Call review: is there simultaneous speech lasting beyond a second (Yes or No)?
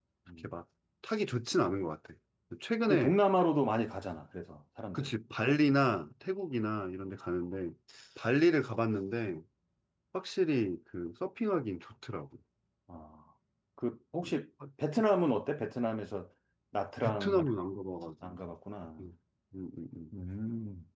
No